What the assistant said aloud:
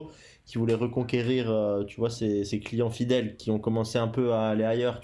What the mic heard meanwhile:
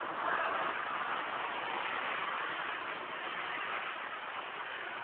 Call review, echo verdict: none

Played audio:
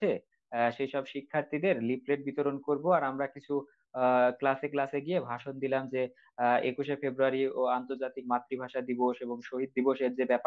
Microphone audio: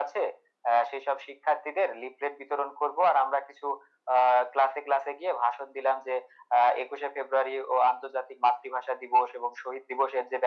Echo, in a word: present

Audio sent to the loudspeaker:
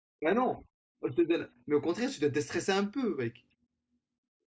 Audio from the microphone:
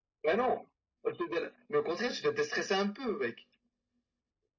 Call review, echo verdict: present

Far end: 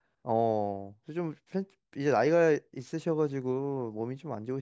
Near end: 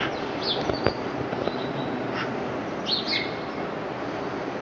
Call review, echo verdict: none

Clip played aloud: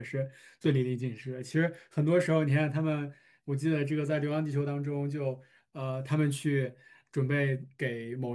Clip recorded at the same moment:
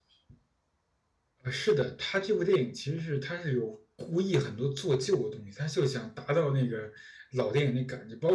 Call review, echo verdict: none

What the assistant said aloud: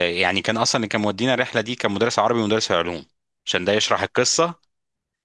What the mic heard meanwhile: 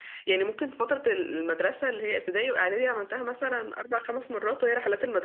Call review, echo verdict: none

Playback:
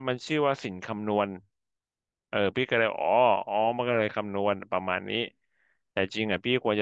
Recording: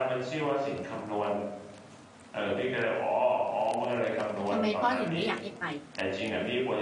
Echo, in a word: present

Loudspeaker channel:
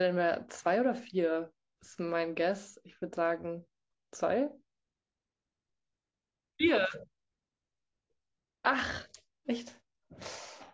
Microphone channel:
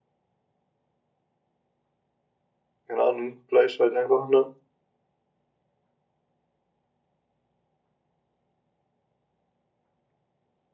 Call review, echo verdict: none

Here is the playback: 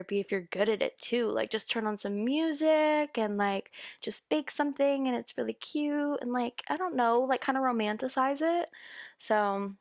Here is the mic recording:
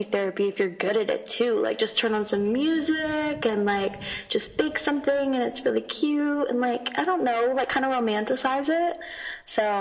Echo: present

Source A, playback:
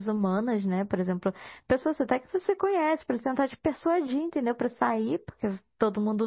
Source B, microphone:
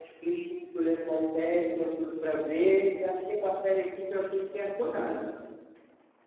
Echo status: none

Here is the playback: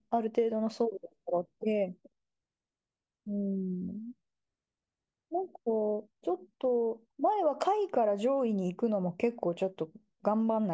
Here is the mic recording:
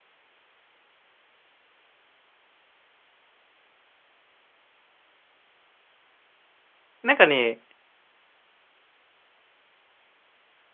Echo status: none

